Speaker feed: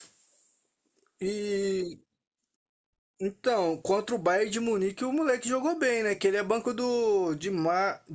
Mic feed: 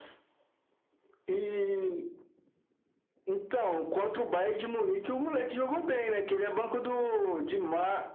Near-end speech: none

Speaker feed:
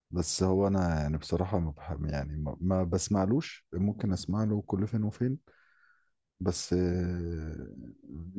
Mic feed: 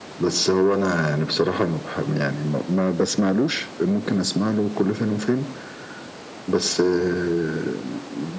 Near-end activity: none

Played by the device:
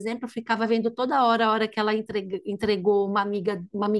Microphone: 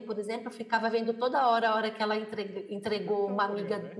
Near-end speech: present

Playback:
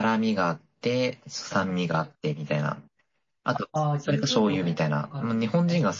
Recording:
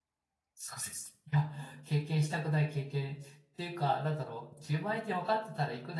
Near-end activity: present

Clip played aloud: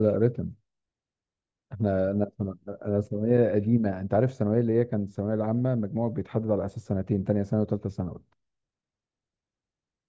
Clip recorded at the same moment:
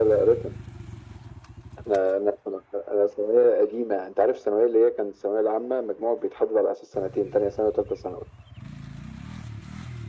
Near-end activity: none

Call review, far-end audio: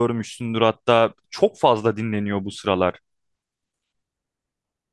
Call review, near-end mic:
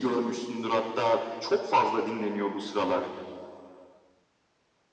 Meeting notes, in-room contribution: none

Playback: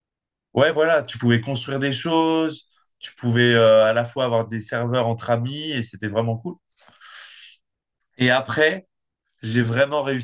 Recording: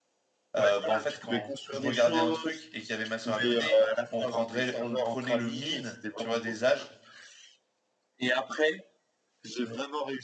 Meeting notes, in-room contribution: present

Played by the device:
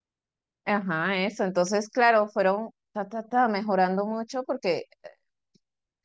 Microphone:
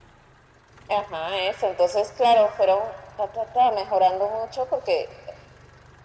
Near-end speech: none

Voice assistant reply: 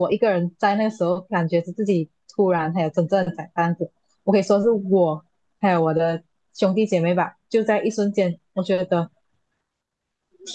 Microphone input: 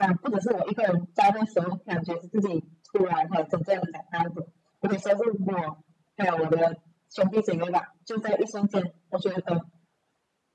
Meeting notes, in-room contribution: none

